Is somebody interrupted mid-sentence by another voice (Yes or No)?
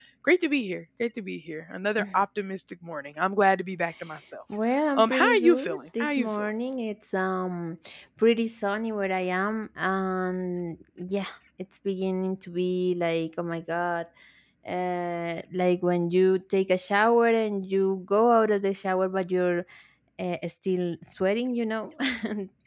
Yes